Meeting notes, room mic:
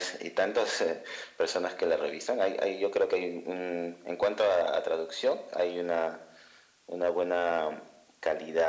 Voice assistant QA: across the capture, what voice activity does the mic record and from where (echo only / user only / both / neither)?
echo only